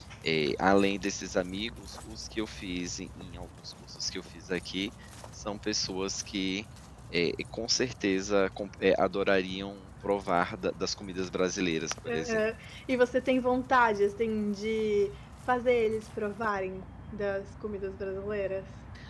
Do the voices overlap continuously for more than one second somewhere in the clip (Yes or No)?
No